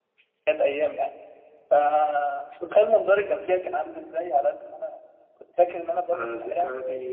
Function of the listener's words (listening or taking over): taking over